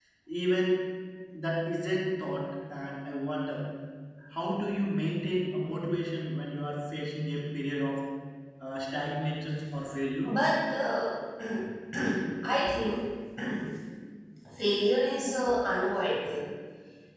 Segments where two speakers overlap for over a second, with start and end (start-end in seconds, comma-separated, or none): none